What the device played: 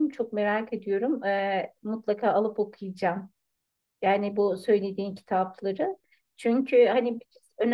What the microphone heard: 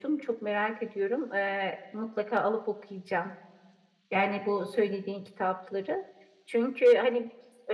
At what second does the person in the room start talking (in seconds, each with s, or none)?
none